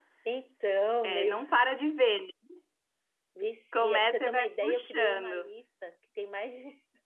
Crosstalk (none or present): present